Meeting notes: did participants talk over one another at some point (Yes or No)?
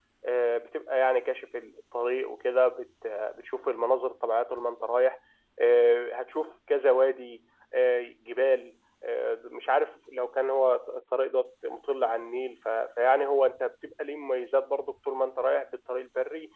No